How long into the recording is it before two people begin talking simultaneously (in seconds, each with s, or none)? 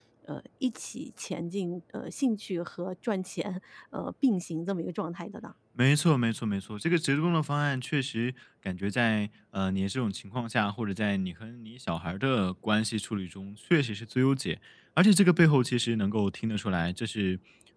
none